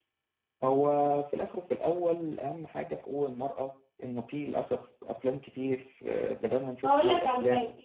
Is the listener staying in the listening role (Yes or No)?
No